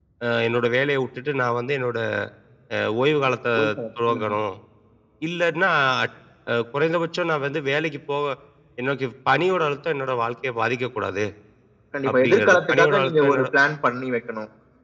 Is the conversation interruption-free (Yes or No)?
No